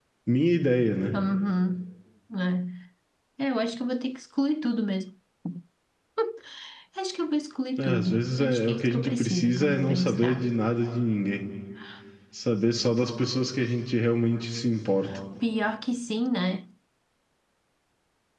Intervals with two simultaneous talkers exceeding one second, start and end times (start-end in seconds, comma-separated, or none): 7.8-10.5